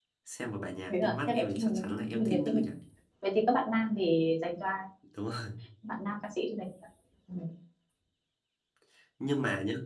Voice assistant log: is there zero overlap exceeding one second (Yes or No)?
No